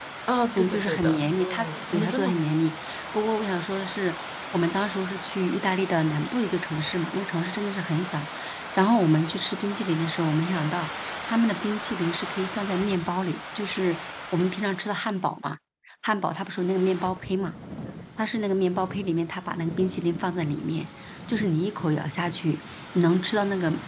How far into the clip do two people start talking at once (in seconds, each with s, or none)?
0.6 s